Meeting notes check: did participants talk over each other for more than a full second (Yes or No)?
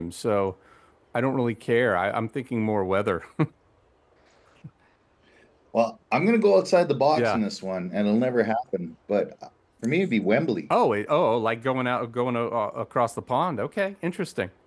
No